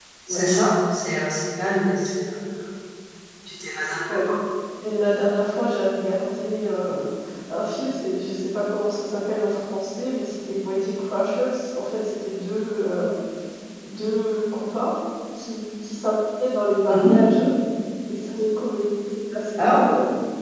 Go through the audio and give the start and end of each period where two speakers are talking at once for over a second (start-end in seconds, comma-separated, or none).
none